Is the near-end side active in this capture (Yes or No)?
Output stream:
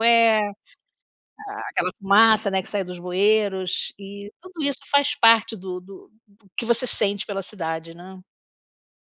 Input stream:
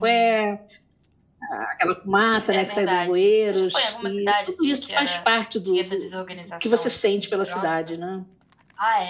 Yes